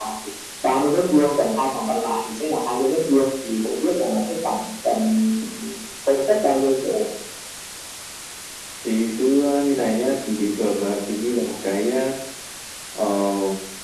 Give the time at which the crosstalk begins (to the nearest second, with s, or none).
none